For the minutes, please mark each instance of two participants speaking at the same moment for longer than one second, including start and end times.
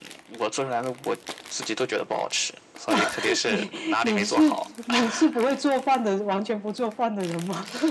2.9-4.6

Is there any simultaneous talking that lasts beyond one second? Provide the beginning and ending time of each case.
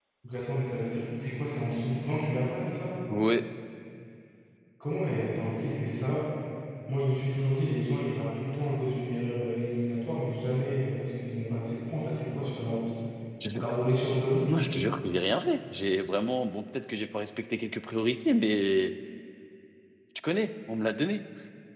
none

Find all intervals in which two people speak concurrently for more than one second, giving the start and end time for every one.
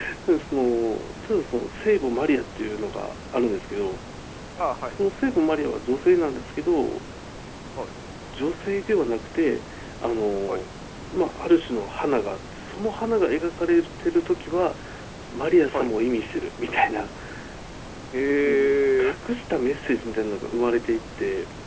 none

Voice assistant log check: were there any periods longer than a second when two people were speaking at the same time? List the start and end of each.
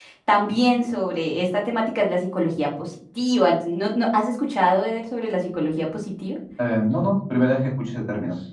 none

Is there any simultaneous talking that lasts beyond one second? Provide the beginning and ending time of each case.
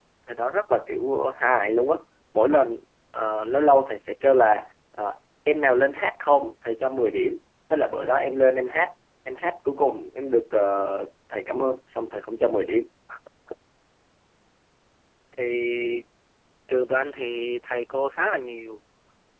none

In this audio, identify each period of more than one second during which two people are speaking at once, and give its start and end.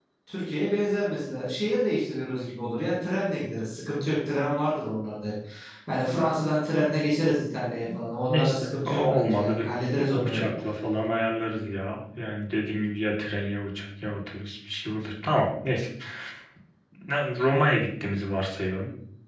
8.2-9.7

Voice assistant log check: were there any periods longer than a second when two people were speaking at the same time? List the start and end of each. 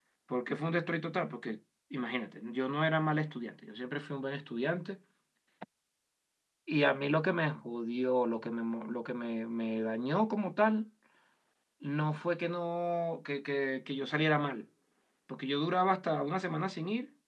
none

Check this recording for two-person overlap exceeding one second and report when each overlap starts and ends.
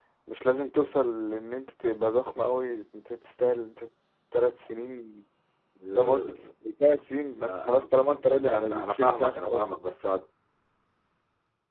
7.4-9.9

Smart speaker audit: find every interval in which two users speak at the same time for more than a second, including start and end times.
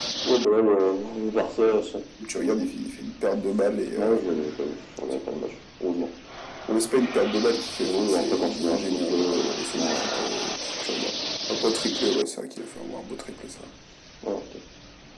7.8-10.3

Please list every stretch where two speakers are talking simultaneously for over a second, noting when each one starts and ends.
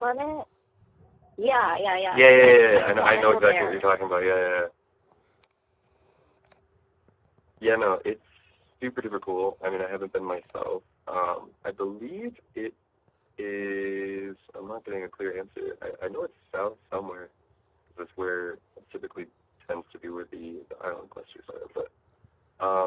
2.1-3.9

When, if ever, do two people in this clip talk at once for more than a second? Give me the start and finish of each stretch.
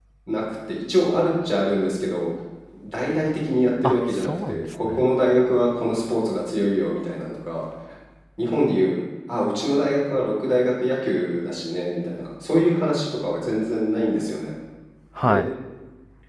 3.8-5.1

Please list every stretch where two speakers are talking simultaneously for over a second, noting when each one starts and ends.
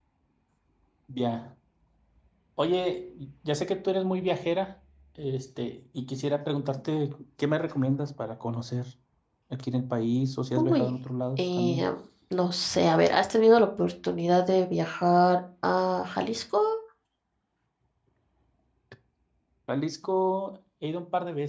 none

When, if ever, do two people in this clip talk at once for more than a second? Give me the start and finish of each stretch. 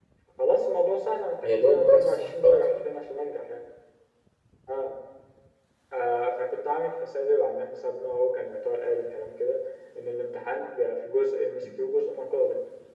1.4-2.6

